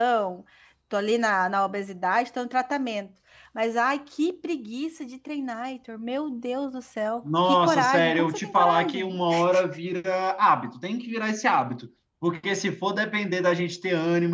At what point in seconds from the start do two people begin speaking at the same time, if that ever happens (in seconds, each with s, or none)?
7.2 s